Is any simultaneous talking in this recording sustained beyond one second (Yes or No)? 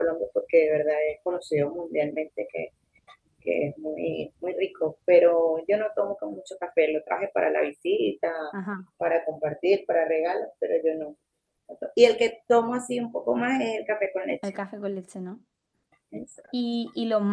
No